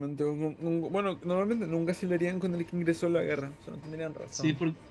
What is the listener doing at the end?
taking over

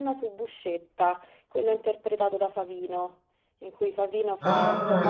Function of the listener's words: taking over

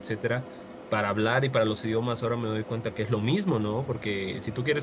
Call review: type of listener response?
listening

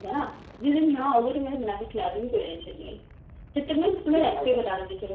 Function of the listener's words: listening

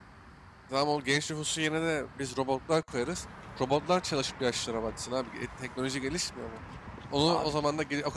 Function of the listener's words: listening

